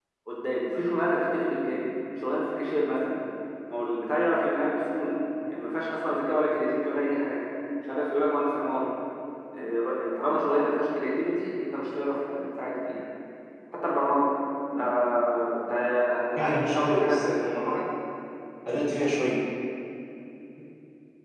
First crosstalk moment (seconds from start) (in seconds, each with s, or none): 16.4 s